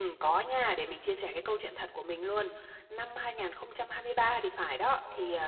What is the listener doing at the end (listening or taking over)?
listening